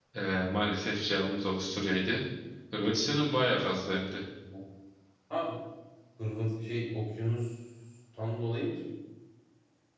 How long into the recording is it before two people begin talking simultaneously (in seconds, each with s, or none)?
none